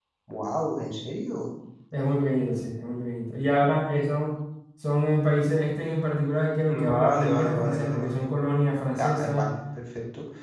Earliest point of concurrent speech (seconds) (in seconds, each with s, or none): 6.7 s